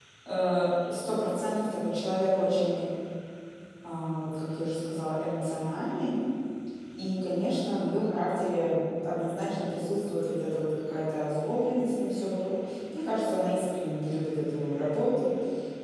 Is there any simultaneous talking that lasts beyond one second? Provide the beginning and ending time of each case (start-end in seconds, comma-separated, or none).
none